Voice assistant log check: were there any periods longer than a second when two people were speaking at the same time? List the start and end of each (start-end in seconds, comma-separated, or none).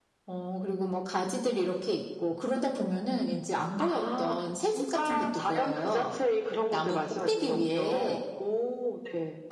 3.8-6.0, 6.7-8.2